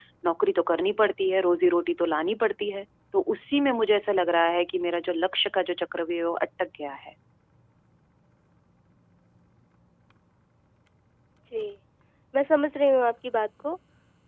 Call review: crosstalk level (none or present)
none